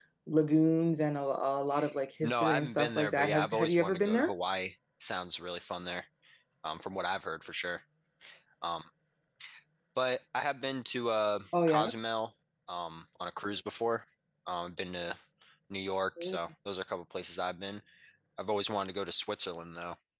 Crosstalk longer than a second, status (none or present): present